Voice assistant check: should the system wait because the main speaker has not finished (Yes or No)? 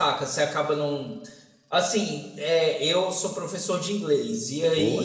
Yes